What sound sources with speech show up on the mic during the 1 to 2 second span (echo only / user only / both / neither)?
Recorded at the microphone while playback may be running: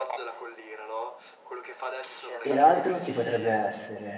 echo only